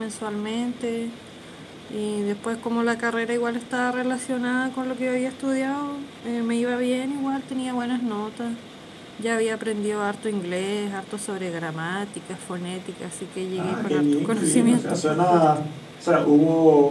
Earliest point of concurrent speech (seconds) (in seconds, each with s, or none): 13.6 s